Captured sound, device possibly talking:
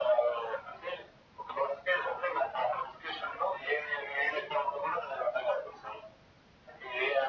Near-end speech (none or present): none